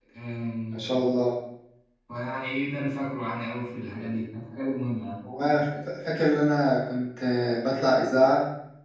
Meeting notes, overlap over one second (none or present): none